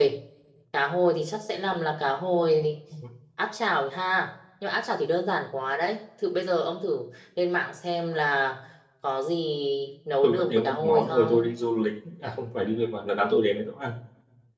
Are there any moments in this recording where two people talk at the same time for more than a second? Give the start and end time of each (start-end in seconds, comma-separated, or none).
10.2-11.5